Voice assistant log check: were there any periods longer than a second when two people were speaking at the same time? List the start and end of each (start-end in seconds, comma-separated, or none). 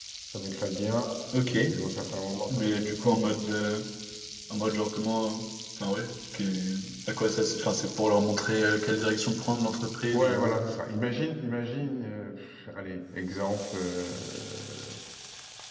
none